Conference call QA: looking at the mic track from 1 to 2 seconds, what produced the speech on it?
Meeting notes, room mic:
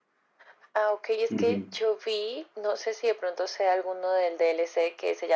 both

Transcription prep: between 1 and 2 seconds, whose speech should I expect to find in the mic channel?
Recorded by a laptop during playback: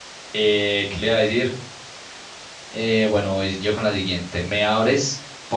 user only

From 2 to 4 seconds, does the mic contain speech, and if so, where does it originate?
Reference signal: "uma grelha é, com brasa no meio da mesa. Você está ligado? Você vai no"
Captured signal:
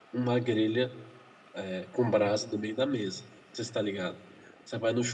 echo only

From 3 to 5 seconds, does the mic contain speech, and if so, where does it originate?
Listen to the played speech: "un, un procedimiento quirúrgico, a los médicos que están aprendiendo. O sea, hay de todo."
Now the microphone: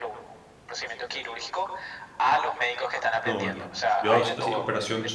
both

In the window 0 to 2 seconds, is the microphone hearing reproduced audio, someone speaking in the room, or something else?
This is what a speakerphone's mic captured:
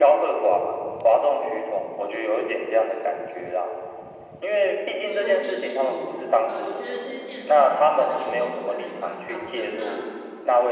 echo only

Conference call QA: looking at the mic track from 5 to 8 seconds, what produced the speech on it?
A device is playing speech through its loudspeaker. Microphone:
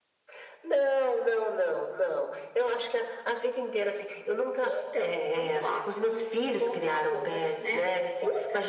echo only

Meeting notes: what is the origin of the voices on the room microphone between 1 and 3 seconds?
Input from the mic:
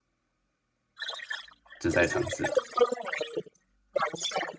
both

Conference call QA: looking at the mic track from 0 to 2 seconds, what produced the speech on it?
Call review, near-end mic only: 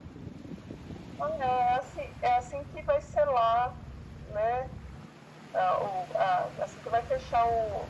echo only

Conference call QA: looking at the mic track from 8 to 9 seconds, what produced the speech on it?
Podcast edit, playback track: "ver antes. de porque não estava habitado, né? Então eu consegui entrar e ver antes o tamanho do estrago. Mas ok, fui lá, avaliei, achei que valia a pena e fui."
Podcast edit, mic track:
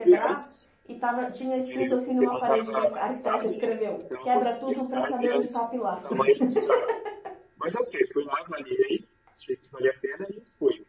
echo only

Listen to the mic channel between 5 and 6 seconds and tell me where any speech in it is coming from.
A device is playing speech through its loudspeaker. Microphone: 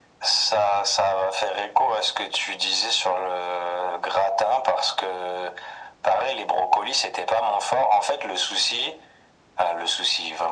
echo only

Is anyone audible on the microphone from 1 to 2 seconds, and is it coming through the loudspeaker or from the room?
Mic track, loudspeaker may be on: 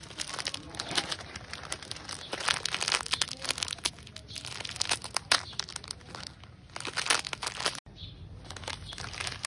neither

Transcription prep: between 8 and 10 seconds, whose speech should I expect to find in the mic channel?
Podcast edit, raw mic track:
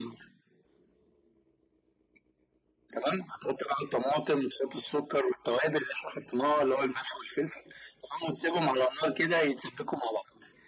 echo only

